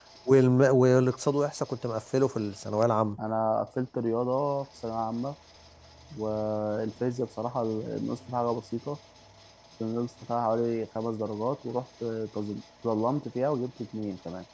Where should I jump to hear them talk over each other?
none

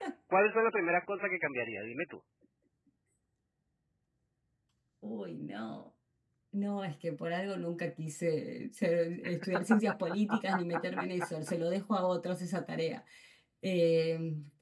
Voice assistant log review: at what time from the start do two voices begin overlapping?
none

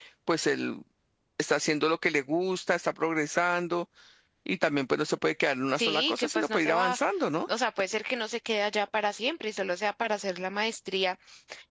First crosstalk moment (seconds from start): 5.8 s

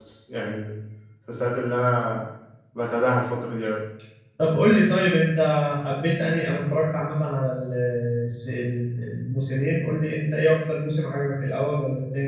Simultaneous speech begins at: none

